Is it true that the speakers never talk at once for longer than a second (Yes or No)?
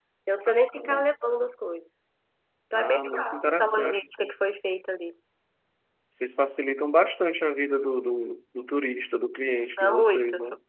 No